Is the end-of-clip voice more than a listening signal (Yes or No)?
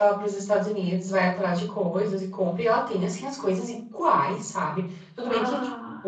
No